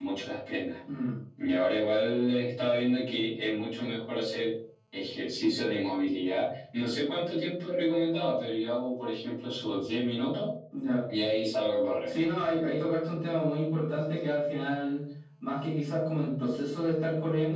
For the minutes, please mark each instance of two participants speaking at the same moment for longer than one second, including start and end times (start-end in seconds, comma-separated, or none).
none